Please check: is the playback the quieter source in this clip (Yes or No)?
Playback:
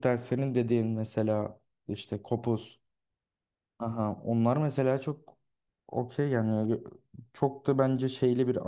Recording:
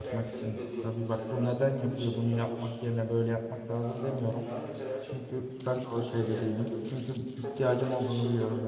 Yes